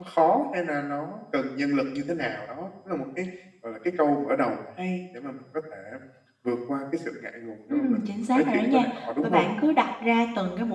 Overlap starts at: 7.7 s

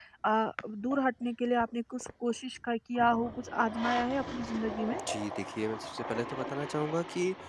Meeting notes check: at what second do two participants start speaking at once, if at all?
none

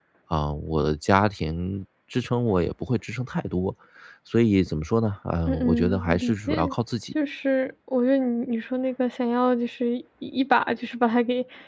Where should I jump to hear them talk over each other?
5.5 s

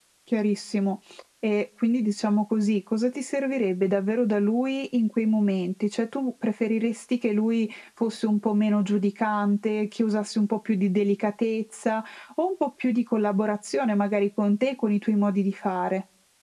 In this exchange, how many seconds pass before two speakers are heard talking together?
none

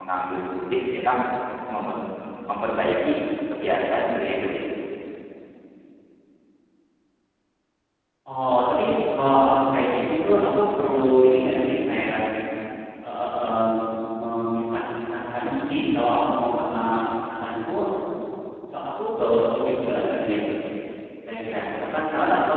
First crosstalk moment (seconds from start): none

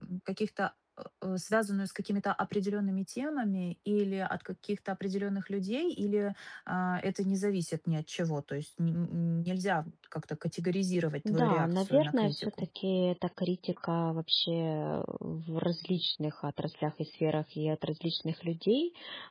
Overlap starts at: 11.2 s

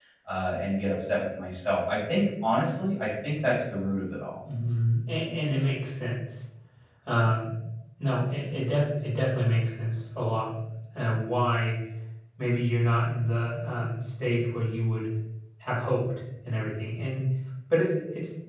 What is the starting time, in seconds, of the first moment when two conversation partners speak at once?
none

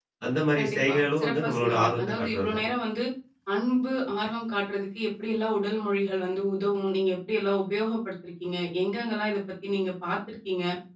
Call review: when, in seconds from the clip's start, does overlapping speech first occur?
0.6 s

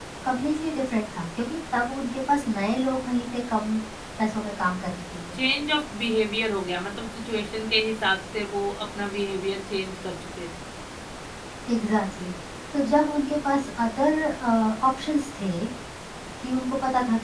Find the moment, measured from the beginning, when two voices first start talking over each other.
none

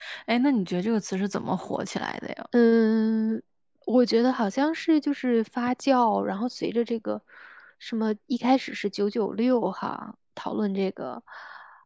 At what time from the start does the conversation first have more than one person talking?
none

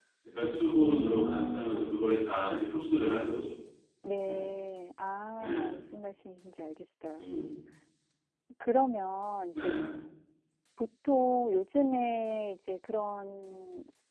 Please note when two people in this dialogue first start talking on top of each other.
0.8 s

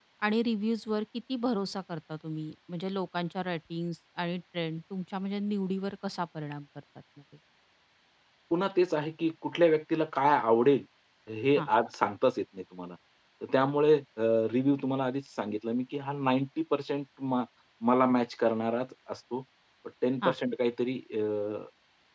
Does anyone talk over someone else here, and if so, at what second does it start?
none

